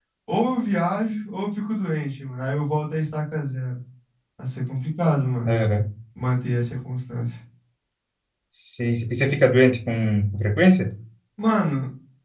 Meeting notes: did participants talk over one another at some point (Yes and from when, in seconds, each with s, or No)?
No